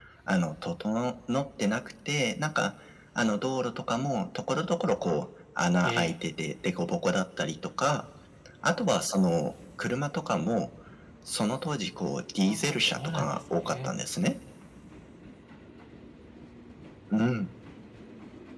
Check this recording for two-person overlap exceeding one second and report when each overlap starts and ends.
12.5-13.9

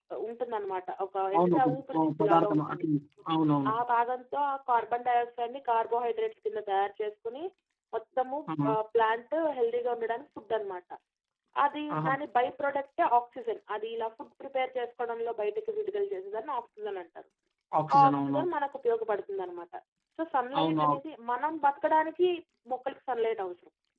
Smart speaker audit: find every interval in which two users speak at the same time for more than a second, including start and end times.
1.4-2.8

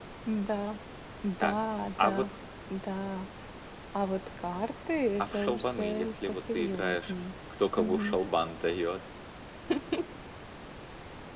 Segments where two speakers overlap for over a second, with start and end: 5.2-7.1

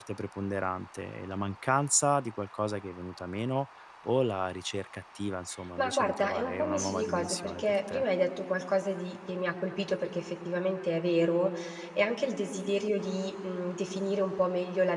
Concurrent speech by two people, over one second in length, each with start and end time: 5.8-8.0

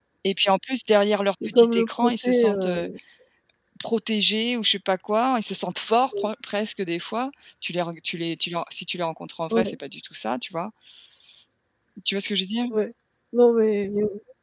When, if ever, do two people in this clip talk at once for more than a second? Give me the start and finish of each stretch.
1.4-2.7

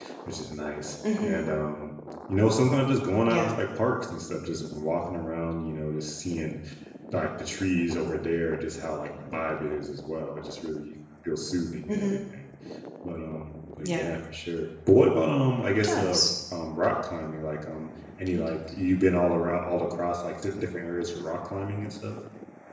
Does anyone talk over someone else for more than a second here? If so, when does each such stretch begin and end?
none

